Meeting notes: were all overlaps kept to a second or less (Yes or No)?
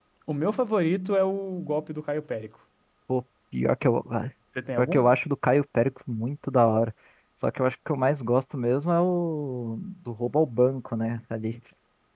Yes